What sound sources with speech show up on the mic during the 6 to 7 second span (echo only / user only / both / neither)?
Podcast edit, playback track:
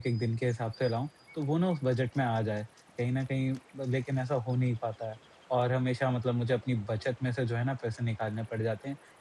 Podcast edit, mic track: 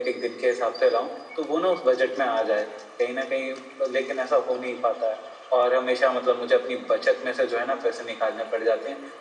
echo only